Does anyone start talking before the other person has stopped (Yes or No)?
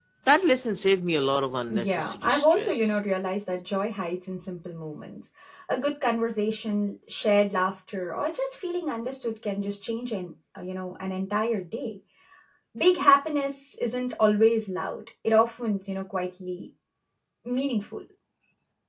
Yes